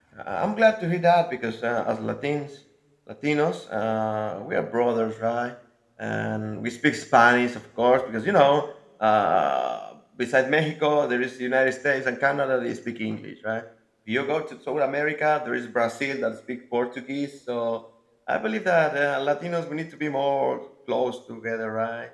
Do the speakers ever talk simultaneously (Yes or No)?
No